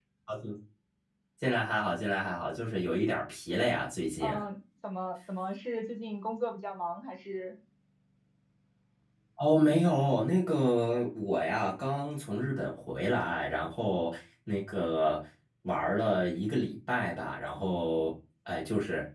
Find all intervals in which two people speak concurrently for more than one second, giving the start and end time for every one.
none

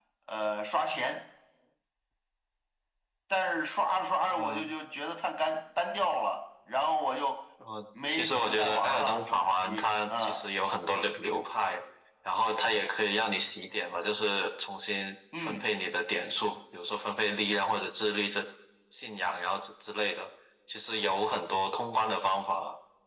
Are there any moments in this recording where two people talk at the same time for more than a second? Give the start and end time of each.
8.1-10.4

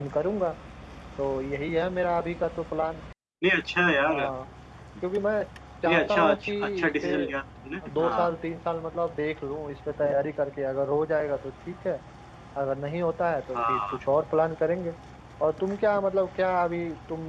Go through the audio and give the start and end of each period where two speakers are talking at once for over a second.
5.9-7.1

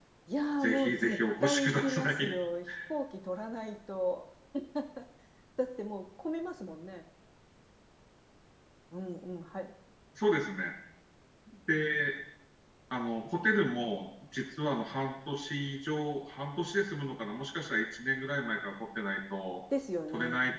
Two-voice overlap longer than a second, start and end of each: 0.6-2.3

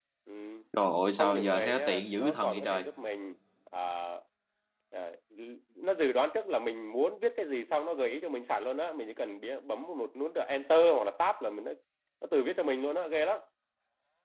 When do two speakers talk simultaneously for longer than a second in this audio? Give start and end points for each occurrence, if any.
1.2-2.8

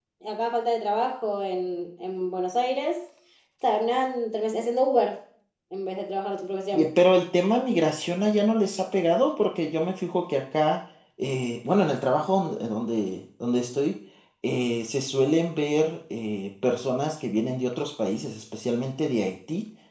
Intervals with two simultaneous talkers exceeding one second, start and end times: none

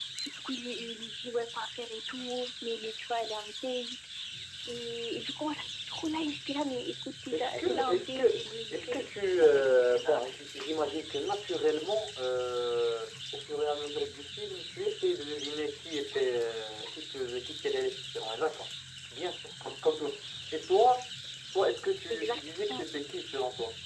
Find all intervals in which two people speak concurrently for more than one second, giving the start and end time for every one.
7.3-10.2

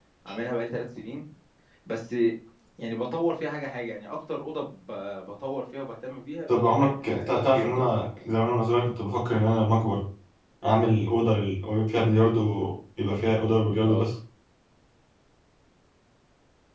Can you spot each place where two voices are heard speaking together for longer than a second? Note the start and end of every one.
6.5-7.9

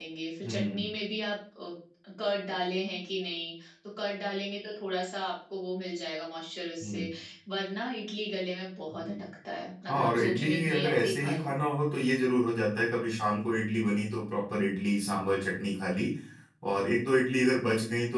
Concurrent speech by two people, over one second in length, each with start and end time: 9.9-11.6

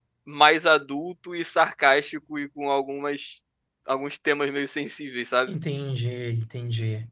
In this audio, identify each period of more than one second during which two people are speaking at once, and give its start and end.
none

